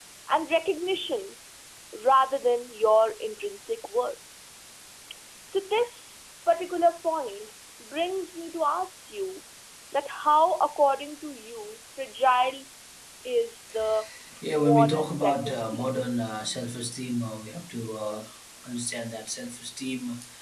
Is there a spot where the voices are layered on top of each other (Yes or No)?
Yes